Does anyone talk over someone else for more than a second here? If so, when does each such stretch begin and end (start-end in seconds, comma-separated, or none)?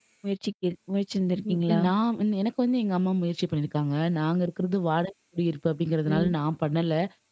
none